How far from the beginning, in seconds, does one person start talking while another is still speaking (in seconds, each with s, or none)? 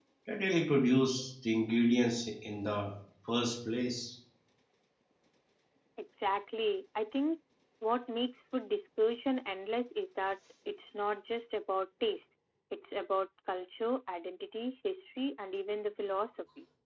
none